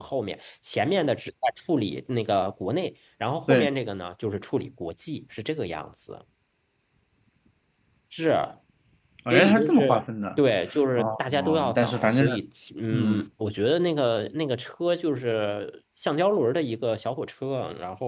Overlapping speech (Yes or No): Yes